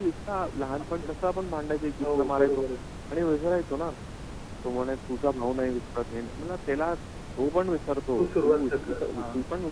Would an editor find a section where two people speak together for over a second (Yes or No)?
Yes